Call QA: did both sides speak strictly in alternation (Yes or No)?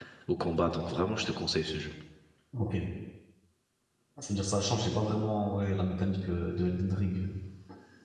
Yes